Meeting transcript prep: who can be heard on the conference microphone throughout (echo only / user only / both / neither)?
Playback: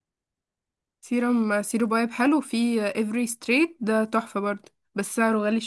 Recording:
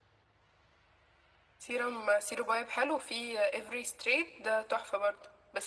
echo only